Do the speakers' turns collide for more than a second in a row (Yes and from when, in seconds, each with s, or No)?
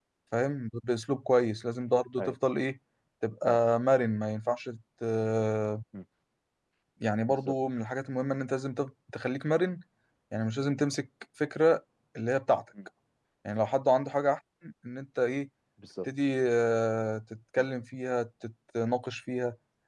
No